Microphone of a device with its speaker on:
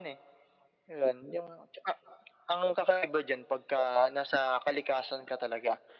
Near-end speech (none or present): none